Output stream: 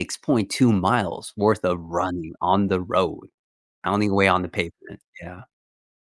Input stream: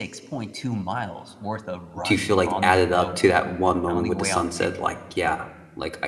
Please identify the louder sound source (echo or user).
user